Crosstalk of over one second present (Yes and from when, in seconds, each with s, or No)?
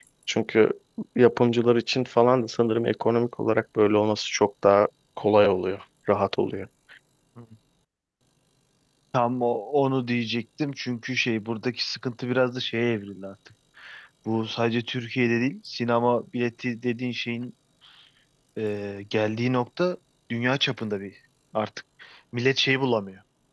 No